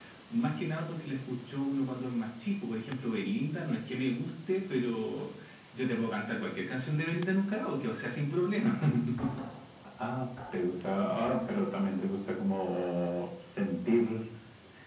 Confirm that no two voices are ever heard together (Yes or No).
Yes